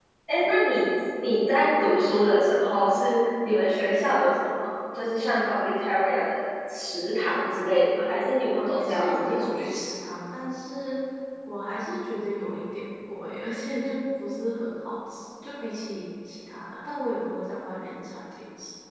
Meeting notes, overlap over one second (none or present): present